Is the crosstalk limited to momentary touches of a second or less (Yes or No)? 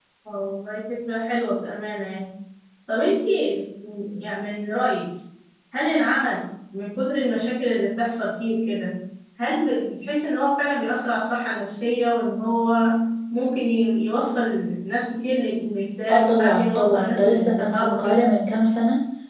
No